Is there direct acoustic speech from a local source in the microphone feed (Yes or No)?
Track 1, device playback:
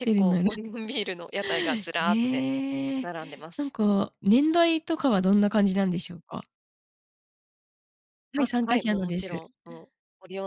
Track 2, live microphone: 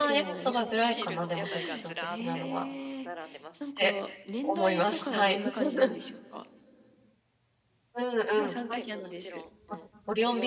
Yes